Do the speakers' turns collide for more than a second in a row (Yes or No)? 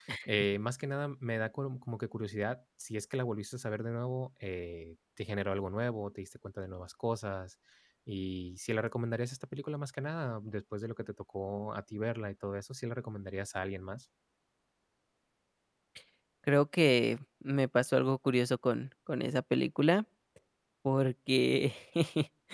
No